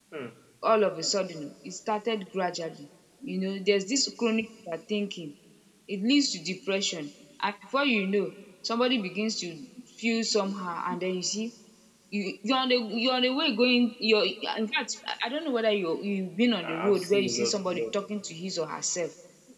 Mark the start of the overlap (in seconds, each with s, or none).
16.6 s